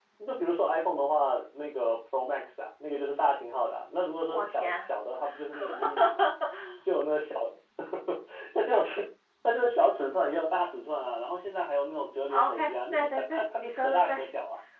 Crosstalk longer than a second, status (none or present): present